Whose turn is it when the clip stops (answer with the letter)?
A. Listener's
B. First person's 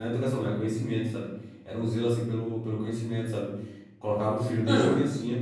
B